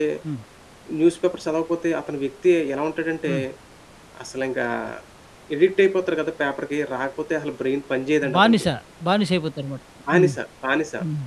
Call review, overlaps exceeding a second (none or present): none